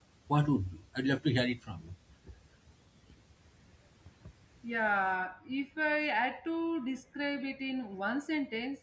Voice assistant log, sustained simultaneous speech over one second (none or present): none